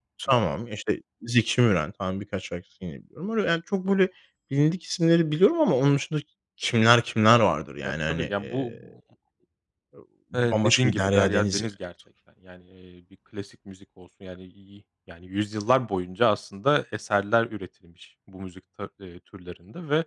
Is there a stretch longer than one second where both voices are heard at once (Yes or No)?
Yes